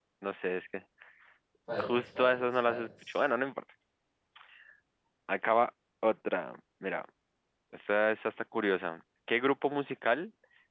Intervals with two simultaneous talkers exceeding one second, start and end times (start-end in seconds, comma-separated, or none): 1.8-3.1